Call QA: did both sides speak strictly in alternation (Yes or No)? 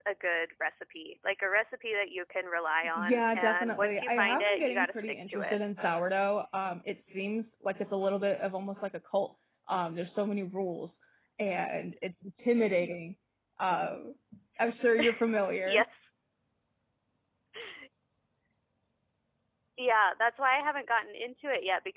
No